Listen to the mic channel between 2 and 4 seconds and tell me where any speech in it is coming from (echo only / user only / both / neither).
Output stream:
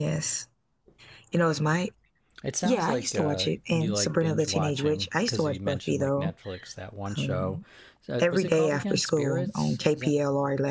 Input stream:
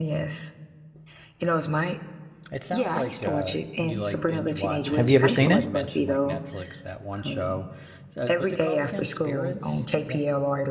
echo only